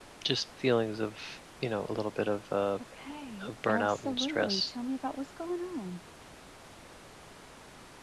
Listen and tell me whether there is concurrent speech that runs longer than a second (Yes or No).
Yes